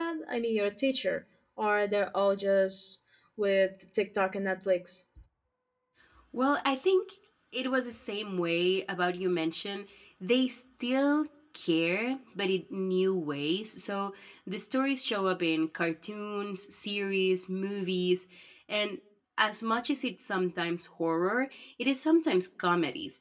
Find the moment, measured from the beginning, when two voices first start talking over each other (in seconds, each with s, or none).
none